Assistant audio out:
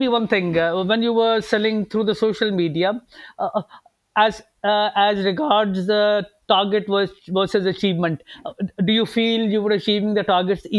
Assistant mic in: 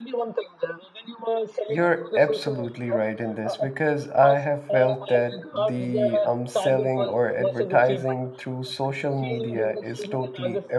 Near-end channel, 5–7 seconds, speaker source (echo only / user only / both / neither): both